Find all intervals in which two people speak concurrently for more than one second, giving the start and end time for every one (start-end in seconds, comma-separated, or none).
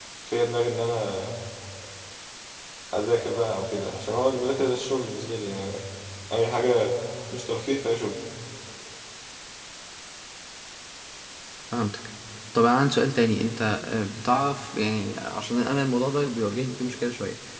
none